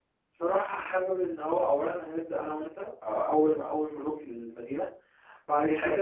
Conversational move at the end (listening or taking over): taking over